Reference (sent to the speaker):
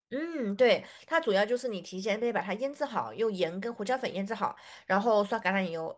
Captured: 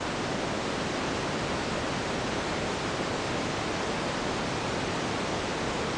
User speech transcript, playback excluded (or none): none